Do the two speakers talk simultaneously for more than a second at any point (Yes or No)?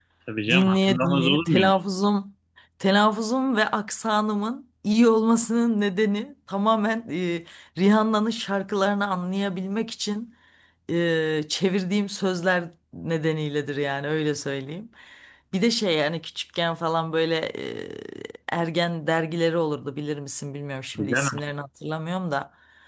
Yes